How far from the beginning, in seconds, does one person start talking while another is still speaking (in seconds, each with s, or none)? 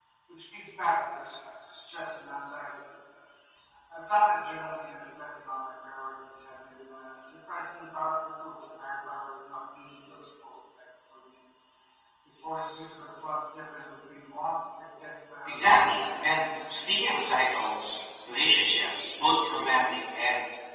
15.4 s